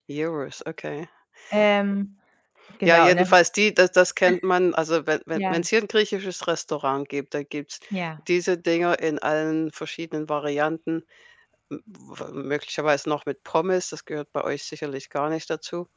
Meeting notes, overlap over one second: none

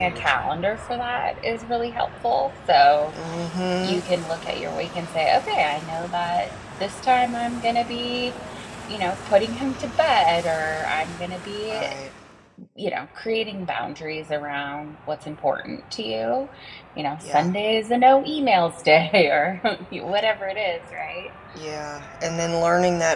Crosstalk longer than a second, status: none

